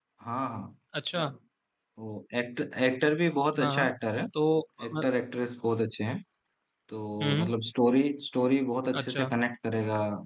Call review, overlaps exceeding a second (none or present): none